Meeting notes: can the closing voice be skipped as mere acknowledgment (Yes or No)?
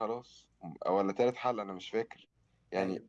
Yes